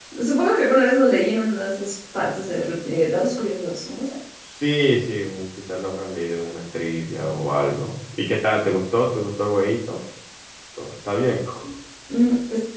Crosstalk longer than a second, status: none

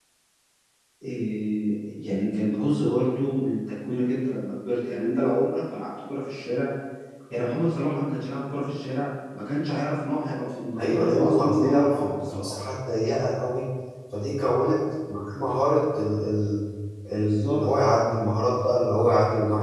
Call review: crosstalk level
present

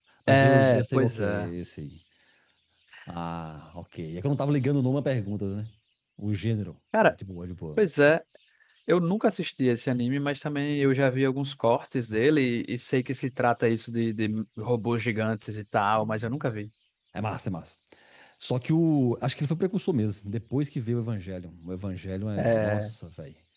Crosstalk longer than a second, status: present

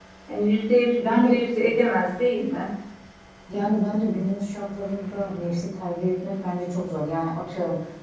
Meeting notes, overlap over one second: none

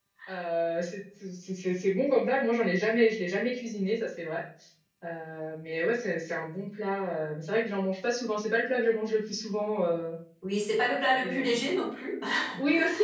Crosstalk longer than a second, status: none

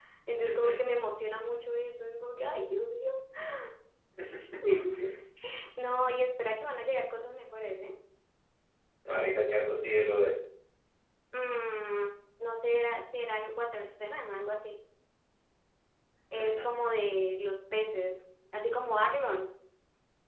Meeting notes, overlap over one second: none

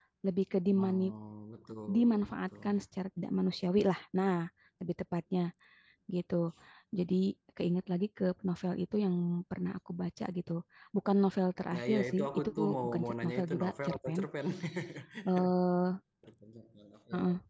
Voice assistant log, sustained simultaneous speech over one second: present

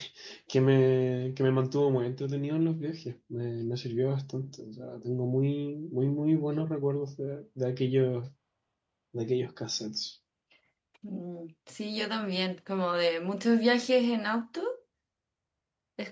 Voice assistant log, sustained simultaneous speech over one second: none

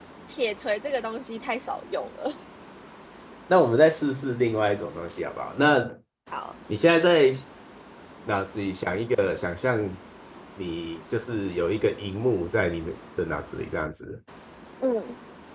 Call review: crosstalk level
none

